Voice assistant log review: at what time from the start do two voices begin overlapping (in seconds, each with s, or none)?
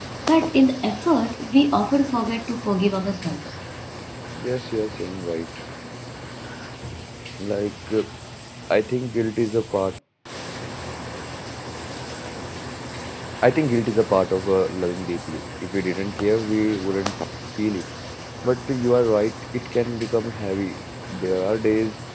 none